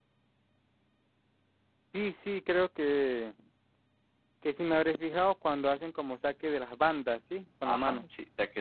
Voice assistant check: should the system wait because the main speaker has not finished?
No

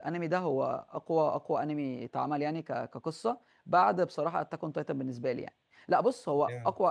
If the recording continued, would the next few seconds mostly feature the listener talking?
No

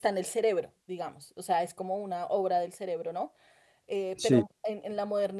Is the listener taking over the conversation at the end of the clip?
No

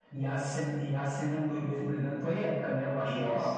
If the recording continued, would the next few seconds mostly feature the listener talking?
Yes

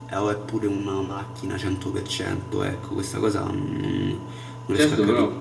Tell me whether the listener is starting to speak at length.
Yes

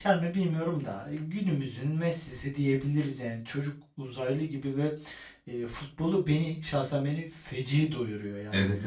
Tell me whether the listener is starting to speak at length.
Yes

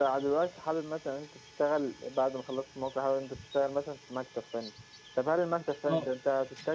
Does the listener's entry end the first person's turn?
No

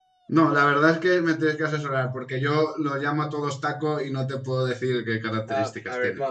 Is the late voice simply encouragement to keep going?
No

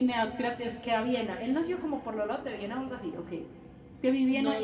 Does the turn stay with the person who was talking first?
No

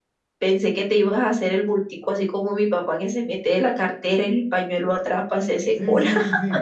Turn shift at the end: Yes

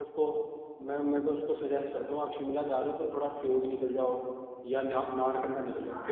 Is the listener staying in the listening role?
Yes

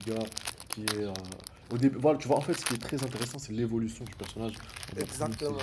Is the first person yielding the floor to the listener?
Yes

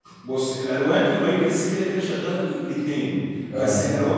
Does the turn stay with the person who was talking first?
Yes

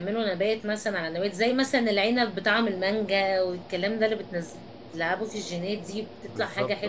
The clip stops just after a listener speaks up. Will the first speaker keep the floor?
Yes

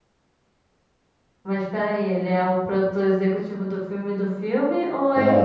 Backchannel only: No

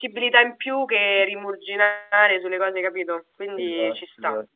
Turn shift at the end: Yes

